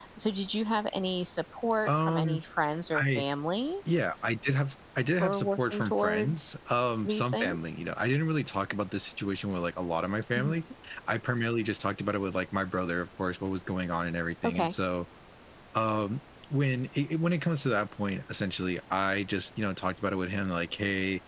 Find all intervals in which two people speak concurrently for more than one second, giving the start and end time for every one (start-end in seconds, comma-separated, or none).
5.2-6.4